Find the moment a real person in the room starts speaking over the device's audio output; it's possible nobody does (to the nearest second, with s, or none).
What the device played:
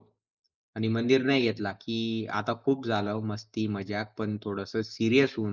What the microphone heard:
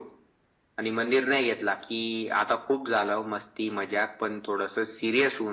none